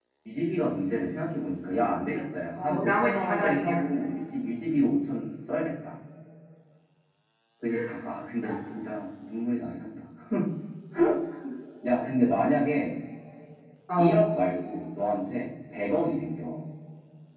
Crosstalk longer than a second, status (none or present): present